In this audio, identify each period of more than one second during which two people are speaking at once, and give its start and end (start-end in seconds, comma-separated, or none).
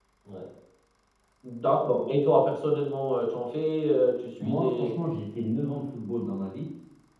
none